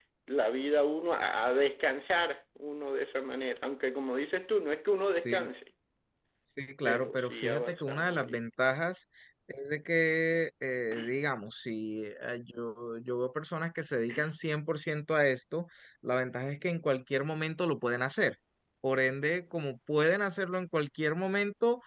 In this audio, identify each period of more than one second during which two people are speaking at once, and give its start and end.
6.9-8.4

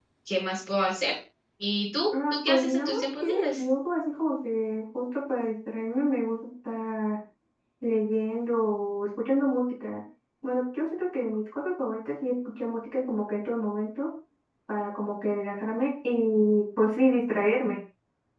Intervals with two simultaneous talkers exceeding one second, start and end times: 2.1-3.4

